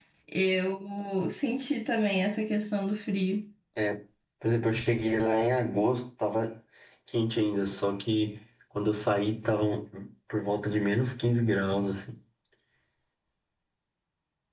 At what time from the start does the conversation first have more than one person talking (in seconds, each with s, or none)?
none